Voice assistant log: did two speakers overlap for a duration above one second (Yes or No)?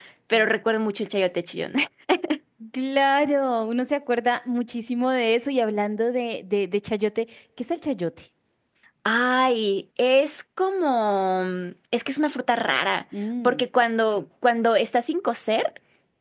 No